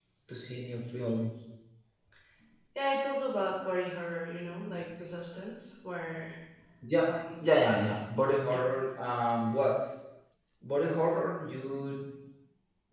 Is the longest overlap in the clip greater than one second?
No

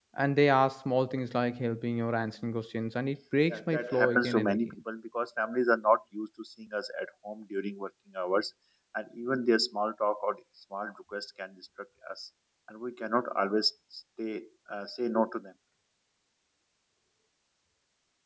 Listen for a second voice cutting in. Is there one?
Yes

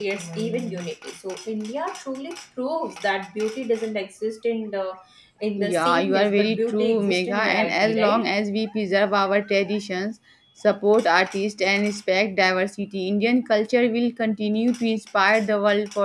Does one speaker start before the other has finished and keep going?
Yes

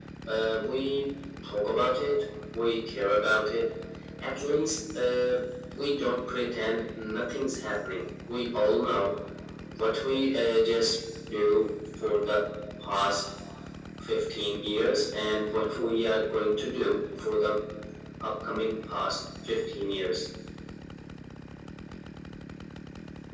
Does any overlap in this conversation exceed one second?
No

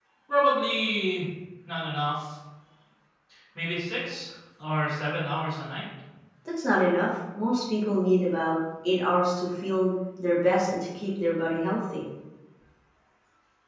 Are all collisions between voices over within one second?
Yes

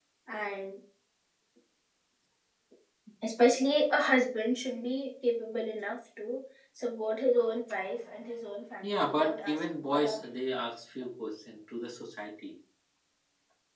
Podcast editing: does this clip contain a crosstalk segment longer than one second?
Yes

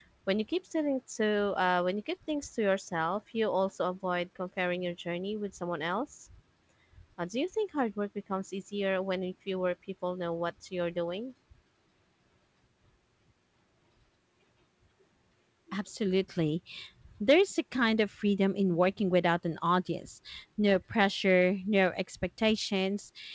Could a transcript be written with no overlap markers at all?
Yes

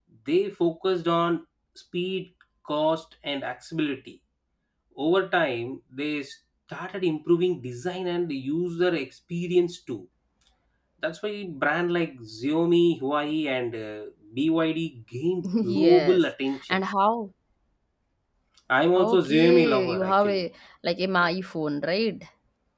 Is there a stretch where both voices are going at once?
Yes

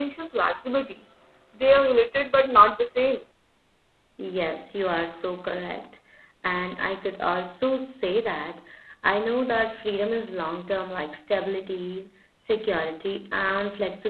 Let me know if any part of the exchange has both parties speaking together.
No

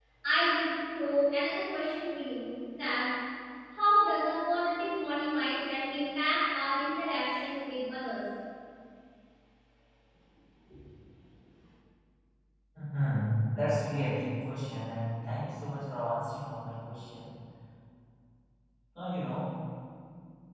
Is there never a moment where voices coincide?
Yes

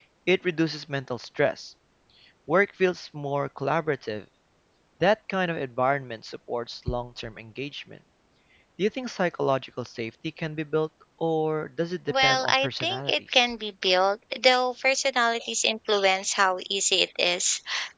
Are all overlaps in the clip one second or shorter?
No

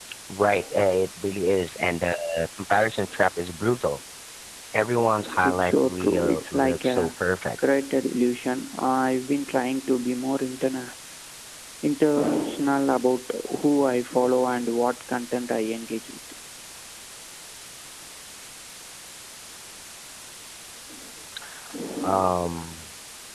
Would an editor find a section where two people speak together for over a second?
Yes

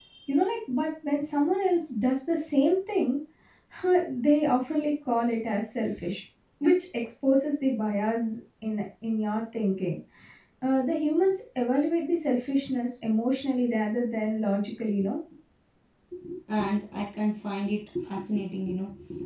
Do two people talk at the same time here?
No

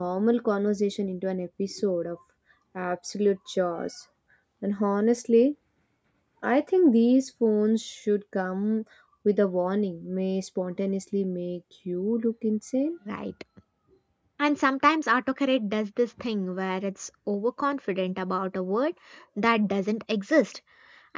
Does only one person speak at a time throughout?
Yes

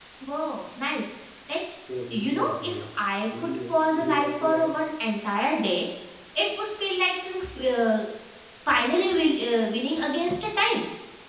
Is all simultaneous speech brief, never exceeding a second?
No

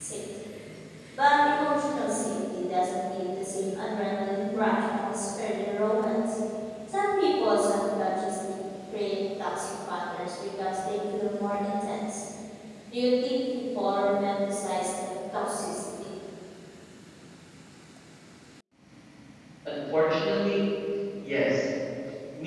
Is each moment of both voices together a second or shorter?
Yes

